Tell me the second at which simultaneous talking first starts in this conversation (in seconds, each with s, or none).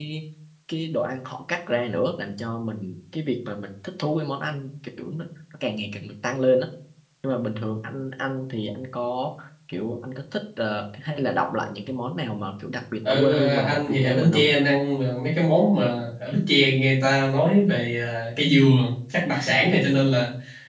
13.1 s